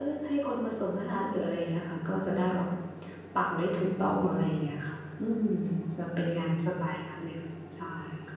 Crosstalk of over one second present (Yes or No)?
No